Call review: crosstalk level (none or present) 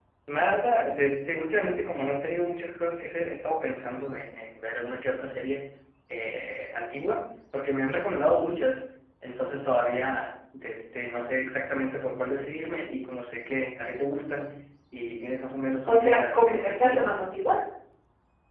present